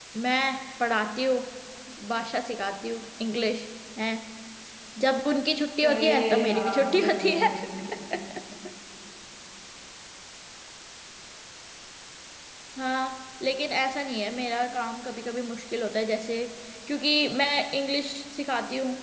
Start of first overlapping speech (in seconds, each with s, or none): 5.8 s